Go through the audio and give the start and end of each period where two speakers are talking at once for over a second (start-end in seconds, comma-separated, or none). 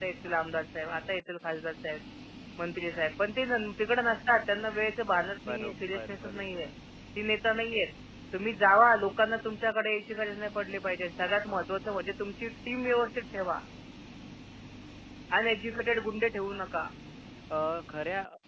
5.5-6.7